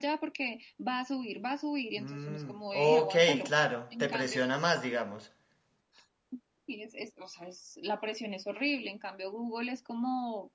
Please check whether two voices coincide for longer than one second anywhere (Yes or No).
Yes